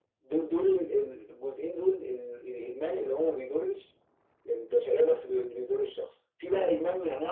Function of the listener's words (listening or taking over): listening